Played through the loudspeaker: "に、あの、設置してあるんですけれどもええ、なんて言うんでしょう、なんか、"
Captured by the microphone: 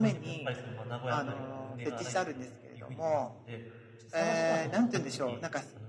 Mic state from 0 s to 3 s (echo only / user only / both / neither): both